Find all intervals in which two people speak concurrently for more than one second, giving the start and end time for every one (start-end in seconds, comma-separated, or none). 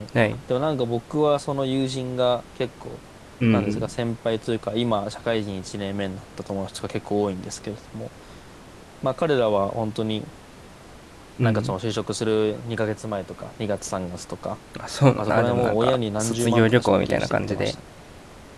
15.2-17.8